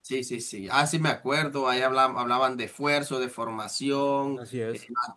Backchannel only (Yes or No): Yes